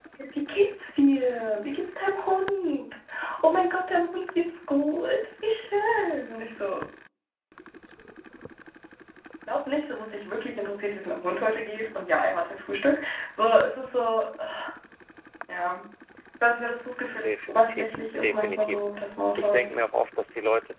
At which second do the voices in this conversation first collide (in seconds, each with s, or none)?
17.2 s